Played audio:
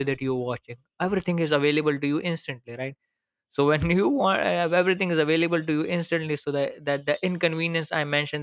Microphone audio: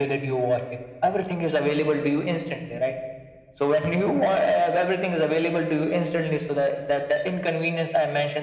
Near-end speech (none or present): none